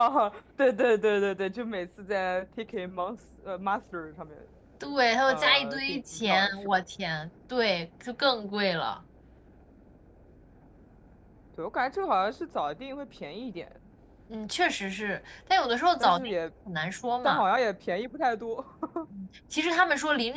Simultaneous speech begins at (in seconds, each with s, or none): 5.3 s